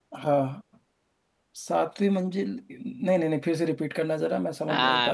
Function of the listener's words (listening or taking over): taking over